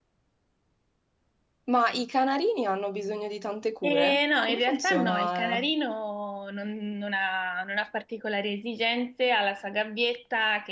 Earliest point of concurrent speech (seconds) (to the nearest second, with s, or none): 4 s